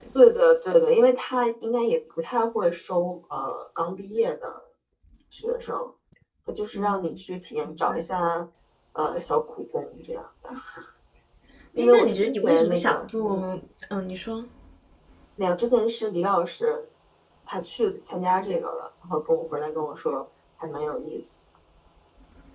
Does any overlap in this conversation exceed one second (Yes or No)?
Yes